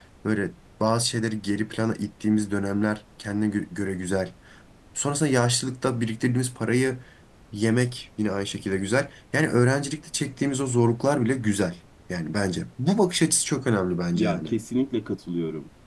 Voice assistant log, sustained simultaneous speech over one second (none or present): none